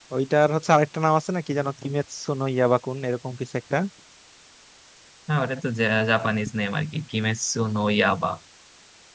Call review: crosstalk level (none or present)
none